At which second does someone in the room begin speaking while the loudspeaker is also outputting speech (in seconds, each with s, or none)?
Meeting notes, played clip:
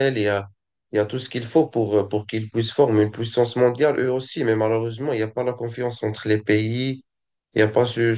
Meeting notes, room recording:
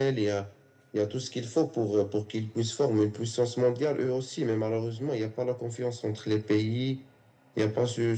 none